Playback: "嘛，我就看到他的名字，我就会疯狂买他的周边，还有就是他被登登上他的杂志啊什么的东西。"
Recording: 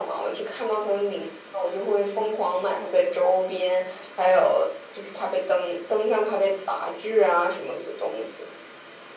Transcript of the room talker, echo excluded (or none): none